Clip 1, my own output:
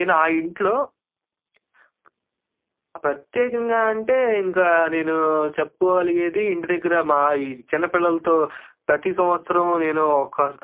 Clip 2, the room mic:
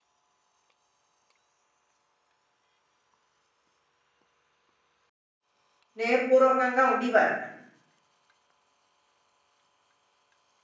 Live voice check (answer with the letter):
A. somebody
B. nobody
A